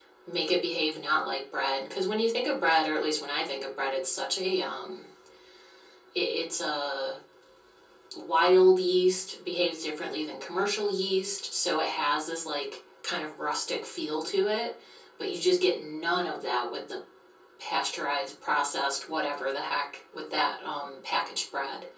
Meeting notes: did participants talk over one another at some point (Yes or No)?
No